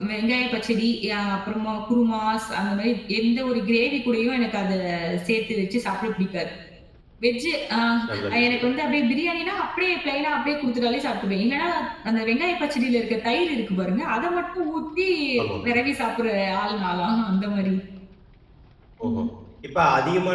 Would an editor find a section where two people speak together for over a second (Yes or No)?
No